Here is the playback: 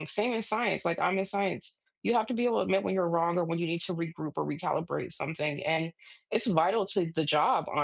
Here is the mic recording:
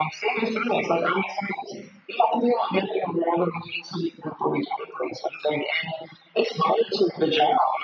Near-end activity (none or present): none